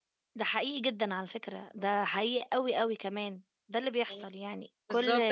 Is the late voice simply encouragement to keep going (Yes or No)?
No